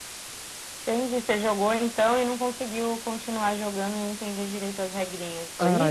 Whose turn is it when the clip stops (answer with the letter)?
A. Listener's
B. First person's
A